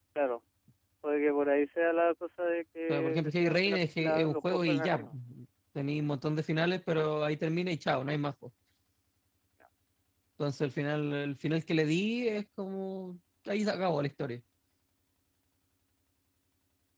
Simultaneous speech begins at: 2.9 s

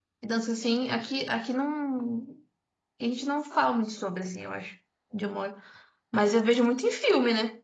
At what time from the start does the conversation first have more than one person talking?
none

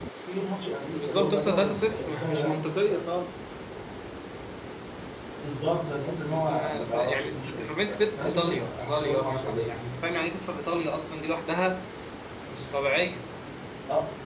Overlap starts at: 0.9 s

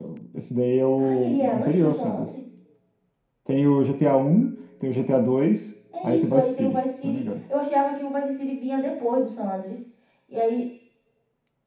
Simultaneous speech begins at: 1.0 s

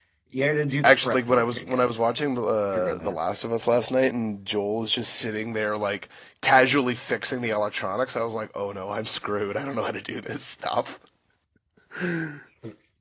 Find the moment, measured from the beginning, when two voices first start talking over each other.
0.8 s

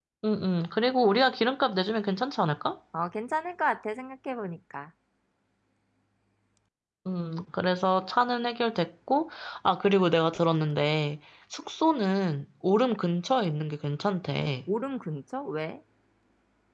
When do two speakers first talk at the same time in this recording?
none

